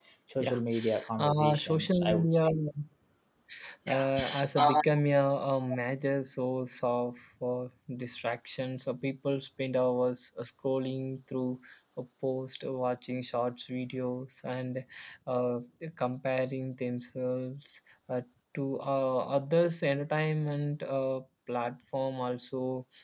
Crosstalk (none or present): present